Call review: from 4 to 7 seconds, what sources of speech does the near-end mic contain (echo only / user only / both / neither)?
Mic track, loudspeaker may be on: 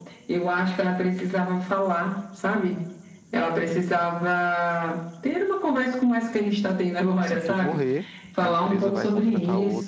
echo only